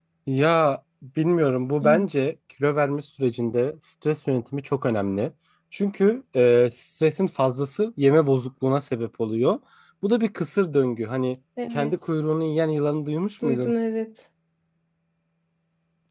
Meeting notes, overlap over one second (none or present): none